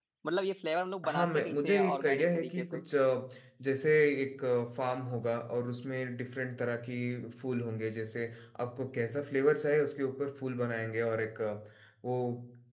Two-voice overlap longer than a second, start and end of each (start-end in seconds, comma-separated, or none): 1.1-2.8